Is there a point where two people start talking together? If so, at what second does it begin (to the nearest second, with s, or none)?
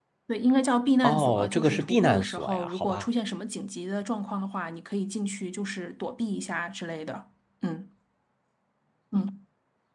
1 s